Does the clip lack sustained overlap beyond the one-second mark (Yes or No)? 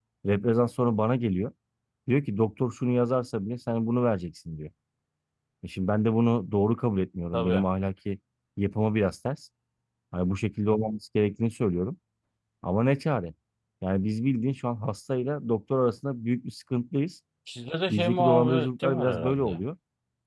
No